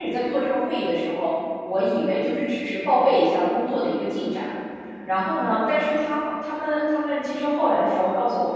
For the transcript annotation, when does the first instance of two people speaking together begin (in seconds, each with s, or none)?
none